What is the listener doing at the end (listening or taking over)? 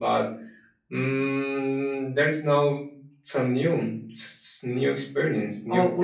taking over